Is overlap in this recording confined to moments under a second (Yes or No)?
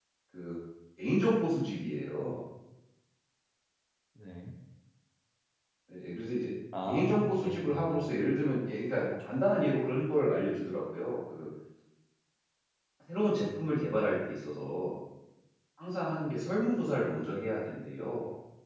No